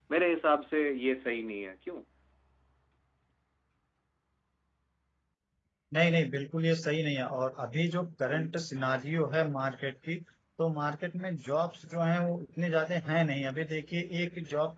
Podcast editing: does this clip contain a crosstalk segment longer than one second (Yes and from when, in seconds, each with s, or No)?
No